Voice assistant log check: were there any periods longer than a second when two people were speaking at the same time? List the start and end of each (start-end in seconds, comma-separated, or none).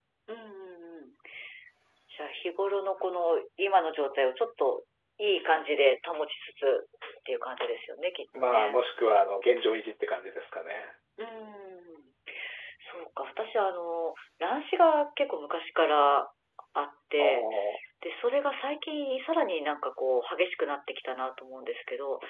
none